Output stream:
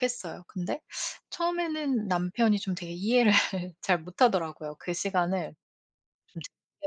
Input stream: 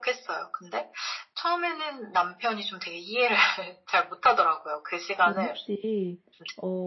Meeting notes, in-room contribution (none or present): present